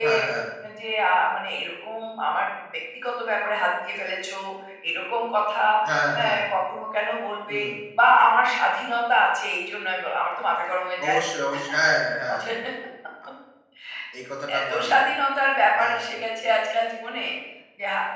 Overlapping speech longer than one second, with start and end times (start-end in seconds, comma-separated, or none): none